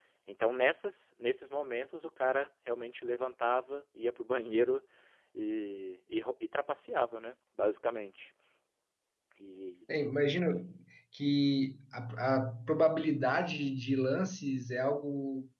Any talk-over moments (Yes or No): No